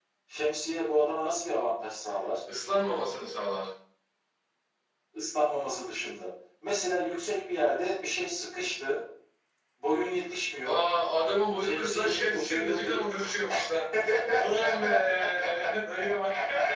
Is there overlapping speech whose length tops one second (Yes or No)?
Yes